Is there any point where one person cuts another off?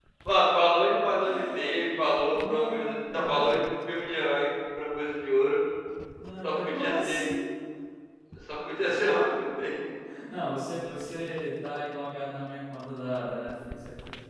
Yes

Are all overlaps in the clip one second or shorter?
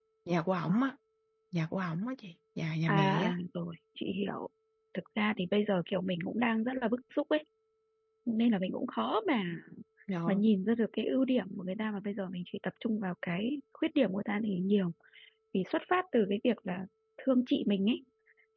Yes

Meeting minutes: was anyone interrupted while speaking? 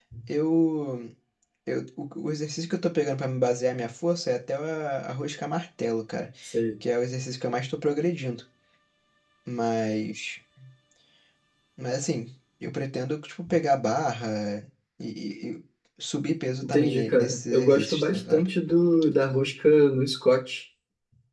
Yes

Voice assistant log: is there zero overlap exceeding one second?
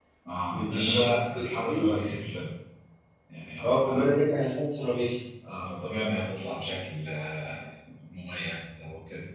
No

